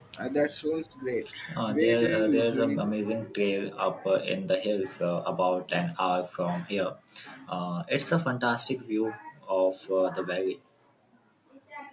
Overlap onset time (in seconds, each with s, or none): 1.5 s